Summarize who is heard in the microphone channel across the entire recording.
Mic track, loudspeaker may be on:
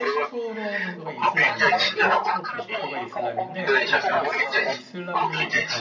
both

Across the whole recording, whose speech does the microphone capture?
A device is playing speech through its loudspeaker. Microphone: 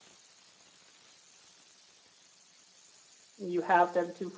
user only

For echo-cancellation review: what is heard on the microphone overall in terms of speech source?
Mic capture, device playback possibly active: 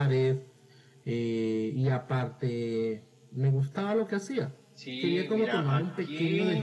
both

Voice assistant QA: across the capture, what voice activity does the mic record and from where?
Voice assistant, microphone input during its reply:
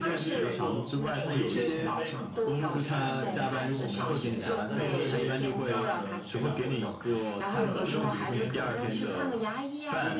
both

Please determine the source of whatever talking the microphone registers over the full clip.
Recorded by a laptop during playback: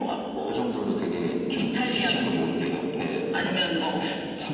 echo only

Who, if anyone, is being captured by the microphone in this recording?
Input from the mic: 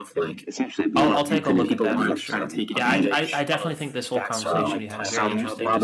both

